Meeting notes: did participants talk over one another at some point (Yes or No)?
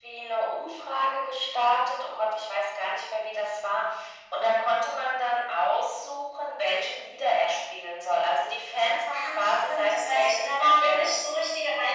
Yes